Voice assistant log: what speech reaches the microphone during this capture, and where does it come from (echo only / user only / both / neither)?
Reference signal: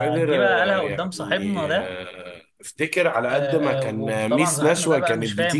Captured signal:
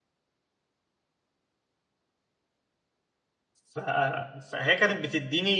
user only